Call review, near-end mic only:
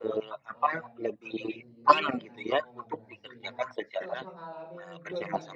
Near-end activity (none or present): present